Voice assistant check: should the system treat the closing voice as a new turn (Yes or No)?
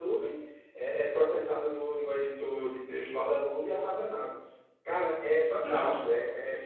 No